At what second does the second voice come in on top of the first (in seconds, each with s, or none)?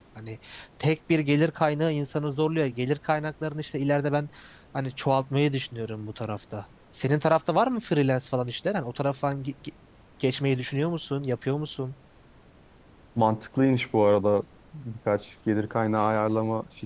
none